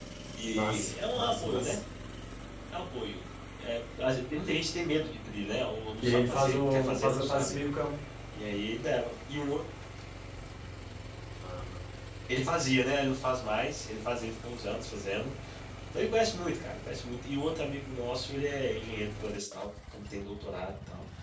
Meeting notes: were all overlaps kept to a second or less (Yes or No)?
No